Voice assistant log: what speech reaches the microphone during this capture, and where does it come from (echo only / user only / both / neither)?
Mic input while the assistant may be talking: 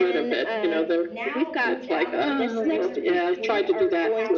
both